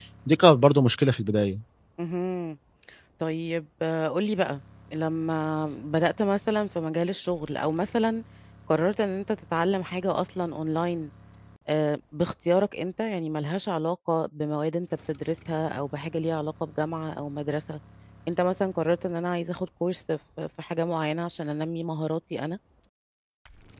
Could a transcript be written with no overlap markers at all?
Yes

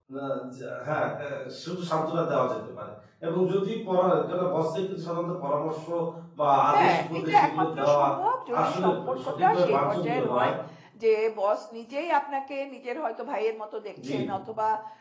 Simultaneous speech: Yes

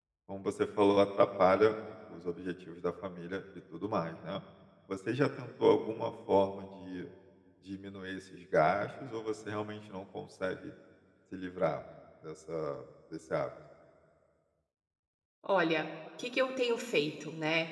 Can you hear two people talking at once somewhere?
No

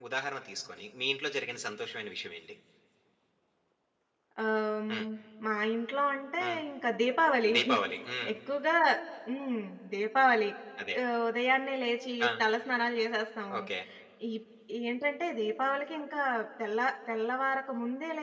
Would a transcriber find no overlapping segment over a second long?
Yes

